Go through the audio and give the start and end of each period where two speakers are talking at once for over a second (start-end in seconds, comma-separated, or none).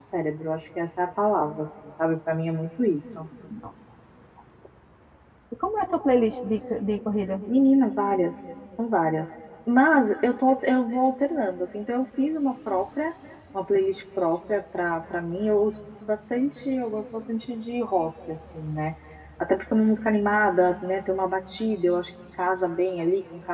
none